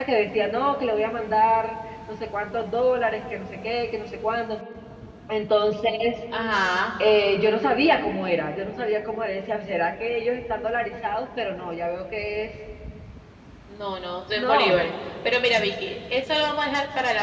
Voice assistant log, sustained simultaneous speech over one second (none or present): none